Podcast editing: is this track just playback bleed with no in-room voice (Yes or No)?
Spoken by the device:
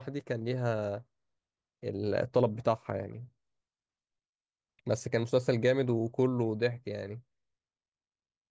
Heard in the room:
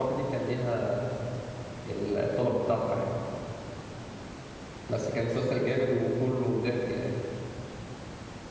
Yes